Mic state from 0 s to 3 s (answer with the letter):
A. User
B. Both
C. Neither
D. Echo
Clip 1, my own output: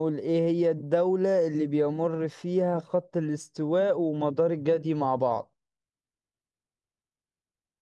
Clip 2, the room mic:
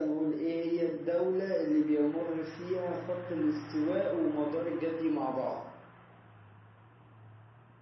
D